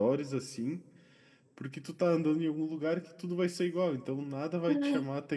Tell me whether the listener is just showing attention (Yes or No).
Yes